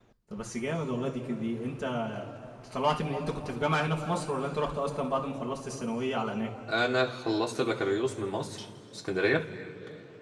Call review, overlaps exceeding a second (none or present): none